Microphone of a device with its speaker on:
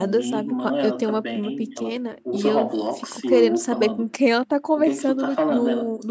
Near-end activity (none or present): present